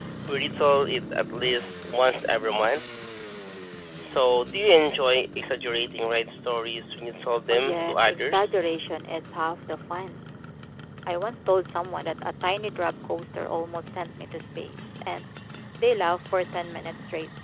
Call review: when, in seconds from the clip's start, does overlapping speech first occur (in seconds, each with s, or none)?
7.5 s